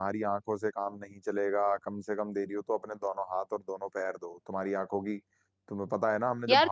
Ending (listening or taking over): taking over